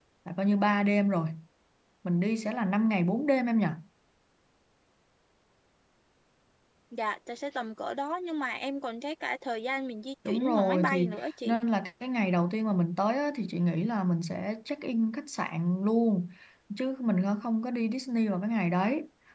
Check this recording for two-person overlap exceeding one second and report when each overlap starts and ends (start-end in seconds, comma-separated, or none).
10.3-11.6